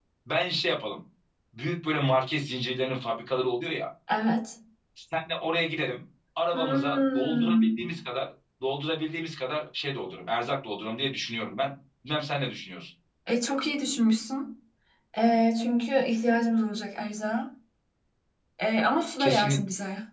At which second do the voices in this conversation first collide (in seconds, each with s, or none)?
6.5 s